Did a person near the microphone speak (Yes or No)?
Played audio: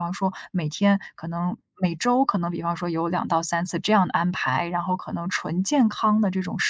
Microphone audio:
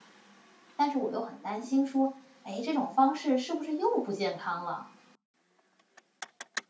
Yes